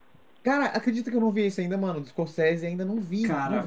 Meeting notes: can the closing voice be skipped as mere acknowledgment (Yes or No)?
No